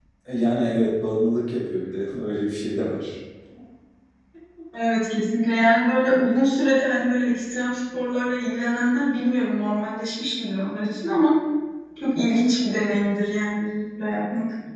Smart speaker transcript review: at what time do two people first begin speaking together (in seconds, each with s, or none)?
none